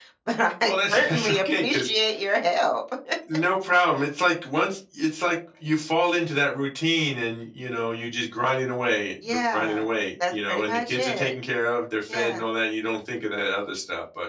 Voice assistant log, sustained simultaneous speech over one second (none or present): present